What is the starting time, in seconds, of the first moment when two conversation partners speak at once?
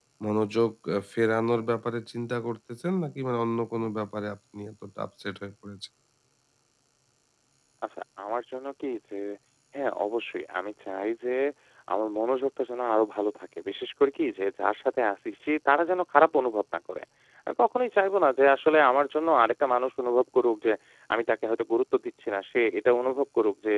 none

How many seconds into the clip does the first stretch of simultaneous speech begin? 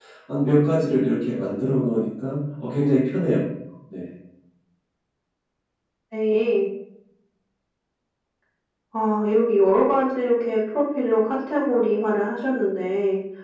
none

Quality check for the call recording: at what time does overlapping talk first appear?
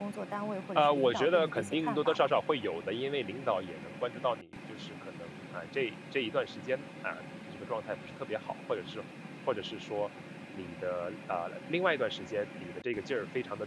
0.8 s

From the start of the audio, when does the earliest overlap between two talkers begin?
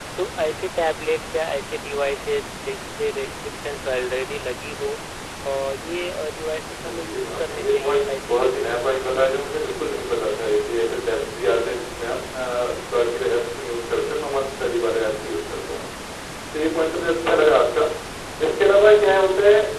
6.8 s

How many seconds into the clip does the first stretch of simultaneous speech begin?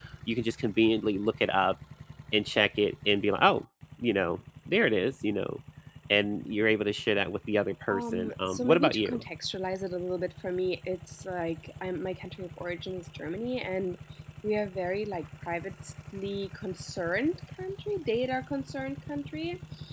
7.9 s

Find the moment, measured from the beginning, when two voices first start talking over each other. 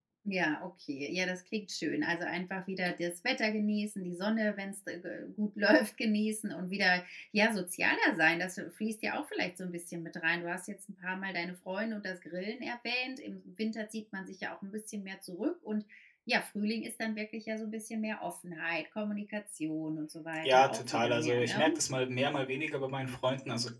20.4 s

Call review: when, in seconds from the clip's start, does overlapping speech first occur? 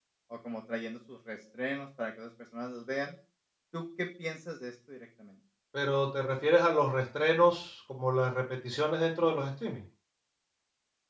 none

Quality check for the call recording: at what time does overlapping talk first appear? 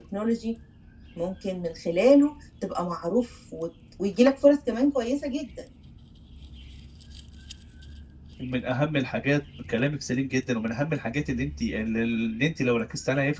none

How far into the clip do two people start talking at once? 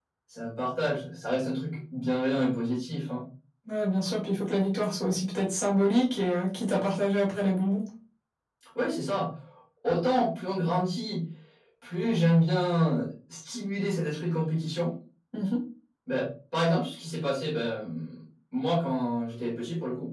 none

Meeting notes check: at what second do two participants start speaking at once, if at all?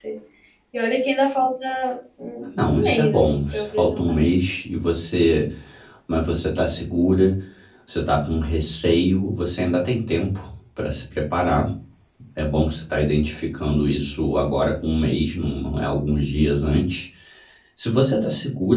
2.4 s

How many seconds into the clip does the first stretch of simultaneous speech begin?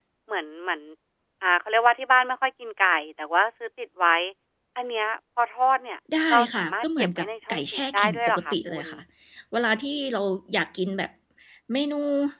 6.1 s

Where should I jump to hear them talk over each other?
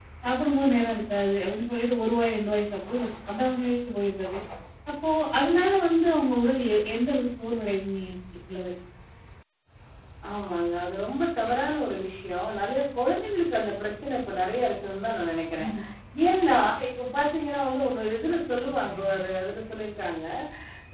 none

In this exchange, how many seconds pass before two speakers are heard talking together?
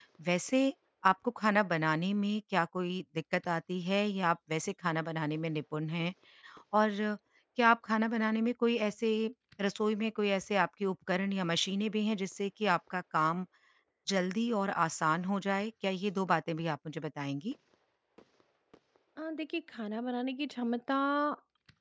none

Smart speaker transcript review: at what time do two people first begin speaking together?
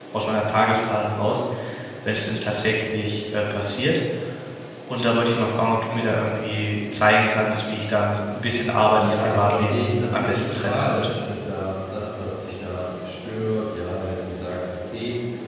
9.0 s

